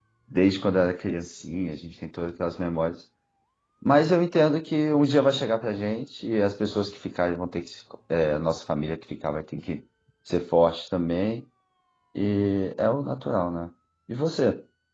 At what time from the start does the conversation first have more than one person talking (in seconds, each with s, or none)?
none